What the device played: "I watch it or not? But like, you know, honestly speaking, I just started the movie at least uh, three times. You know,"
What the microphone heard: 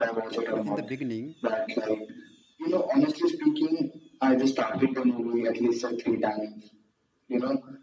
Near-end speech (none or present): present